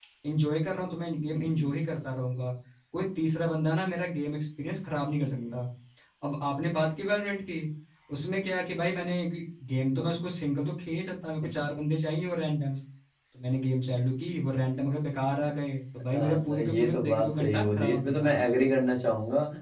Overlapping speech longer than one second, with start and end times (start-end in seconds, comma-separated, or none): 16.1-18.3